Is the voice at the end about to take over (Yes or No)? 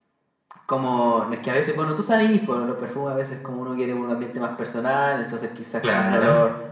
No